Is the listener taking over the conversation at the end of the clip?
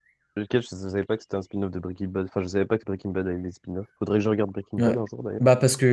Yes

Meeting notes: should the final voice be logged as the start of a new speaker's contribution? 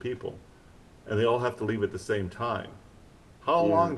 No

